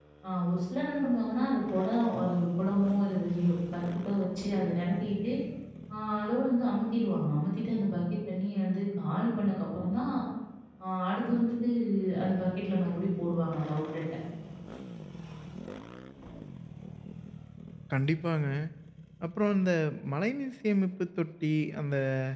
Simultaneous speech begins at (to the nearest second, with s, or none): none